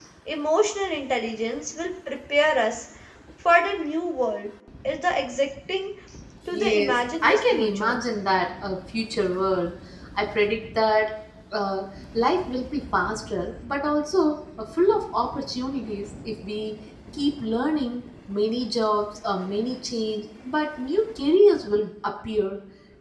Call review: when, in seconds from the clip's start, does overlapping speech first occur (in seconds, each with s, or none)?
6.5 s